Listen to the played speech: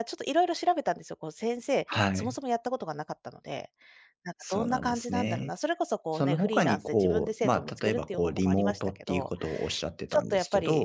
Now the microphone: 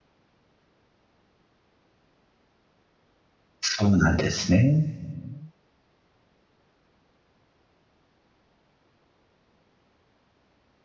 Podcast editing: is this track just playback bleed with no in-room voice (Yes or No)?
No